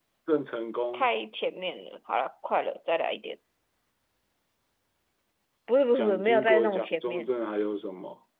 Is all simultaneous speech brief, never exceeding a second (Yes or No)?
No